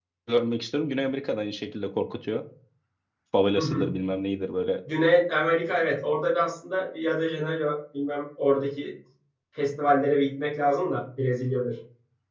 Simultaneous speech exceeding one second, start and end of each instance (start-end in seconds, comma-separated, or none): none